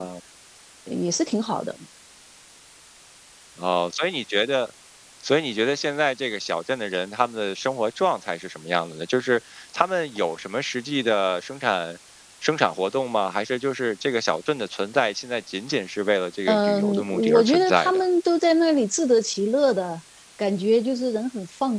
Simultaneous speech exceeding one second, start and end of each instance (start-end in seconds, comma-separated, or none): 16.5-18.0